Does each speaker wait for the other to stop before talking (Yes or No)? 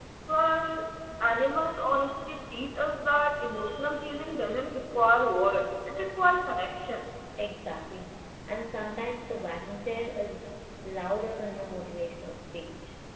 Yes